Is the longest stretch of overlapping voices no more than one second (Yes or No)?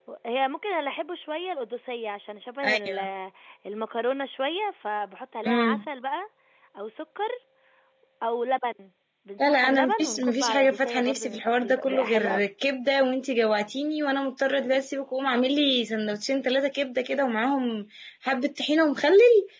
No